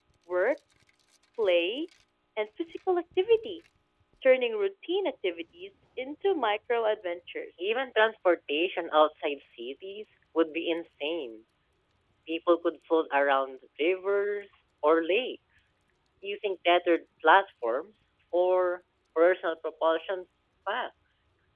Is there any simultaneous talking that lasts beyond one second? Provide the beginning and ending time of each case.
none

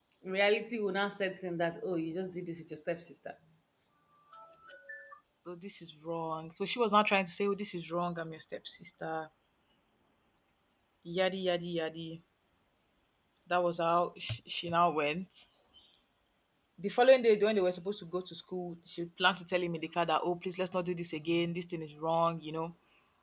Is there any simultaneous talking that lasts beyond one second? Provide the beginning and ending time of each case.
none

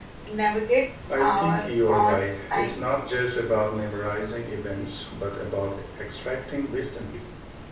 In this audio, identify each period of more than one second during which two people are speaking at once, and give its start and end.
1.2-2.8

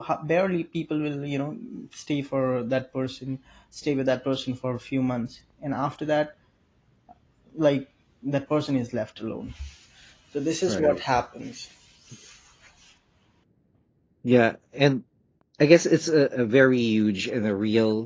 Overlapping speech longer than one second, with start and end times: none

